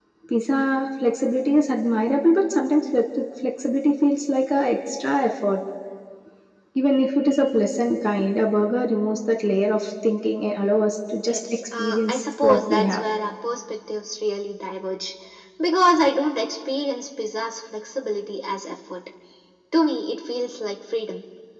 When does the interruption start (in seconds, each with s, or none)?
11.2 s